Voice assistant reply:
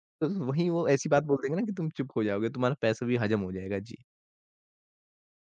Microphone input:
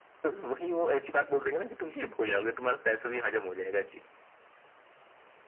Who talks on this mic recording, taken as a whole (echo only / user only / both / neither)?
both